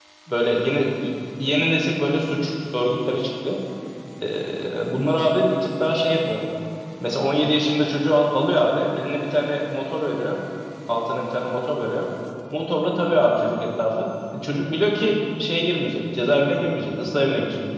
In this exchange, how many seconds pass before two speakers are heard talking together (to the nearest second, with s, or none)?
none